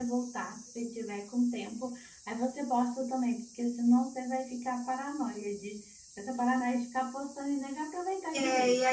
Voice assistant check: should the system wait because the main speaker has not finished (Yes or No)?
No